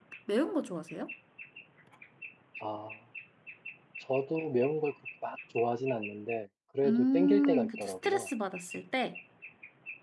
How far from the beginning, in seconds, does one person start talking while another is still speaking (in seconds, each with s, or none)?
6.8 s